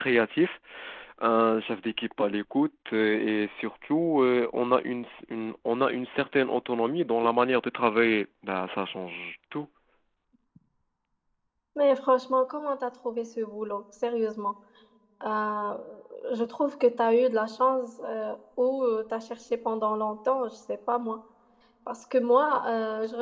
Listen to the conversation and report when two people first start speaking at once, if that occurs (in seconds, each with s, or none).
none